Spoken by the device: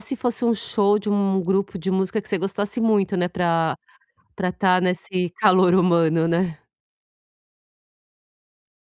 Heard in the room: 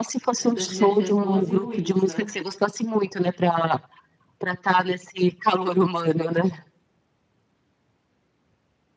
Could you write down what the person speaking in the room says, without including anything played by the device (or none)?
eh, das energias boas e ruins, né.